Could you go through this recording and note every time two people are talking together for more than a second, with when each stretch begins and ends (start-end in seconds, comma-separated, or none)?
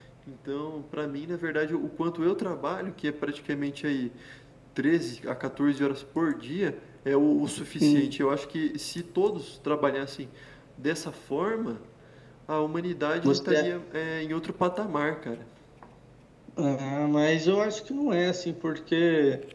none